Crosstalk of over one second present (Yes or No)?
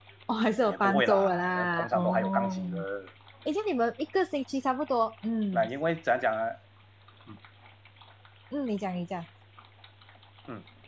Yes